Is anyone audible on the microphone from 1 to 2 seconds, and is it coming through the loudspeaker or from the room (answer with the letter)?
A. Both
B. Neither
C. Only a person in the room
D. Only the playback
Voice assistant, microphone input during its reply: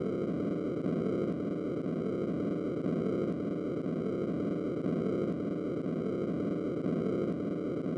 B